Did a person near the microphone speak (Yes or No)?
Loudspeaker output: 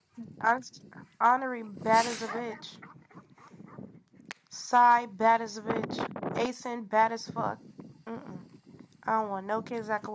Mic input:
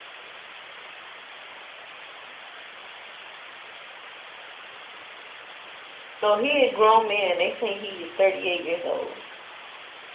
Yes